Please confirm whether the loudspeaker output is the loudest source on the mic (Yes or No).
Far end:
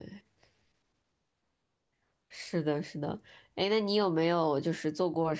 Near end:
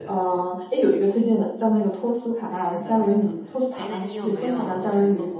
No